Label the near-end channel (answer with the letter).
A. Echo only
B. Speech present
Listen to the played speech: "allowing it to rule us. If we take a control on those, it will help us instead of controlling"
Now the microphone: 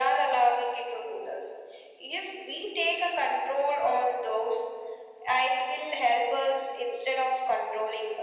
A